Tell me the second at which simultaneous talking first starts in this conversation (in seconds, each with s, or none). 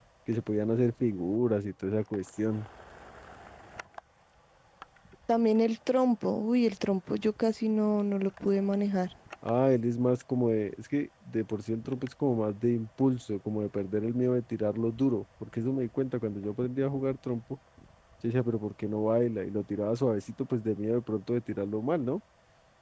none